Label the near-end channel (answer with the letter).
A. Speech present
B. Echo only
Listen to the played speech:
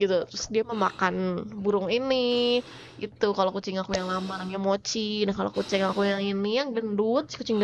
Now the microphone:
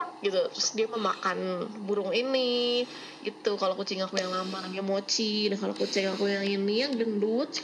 B